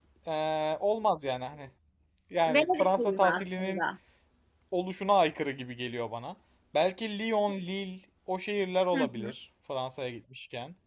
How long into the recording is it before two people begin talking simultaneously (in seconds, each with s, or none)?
2.5 s